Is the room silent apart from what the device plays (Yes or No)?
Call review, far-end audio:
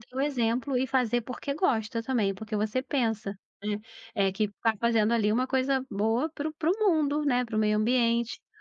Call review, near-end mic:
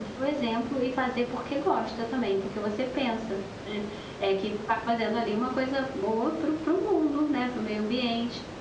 Yes